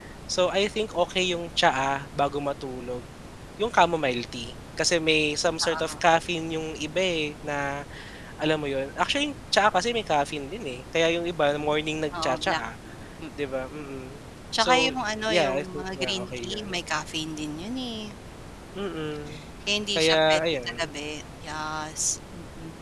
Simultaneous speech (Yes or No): Yes